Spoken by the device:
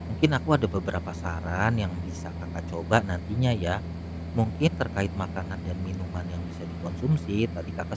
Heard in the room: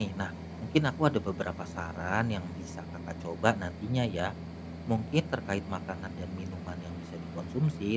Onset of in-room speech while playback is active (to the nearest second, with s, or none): none